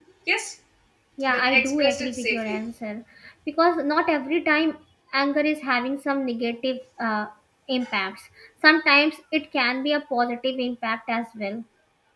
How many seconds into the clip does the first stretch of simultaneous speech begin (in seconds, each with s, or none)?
1.3 s